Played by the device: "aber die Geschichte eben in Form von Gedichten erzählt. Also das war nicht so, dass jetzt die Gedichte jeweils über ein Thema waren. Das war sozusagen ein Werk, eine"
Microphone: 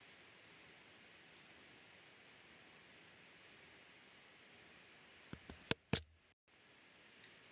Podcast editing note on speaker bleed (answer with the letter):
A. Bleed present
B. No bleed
B